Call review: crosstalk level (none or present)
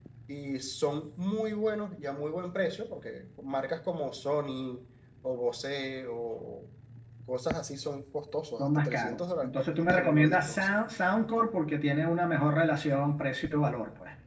present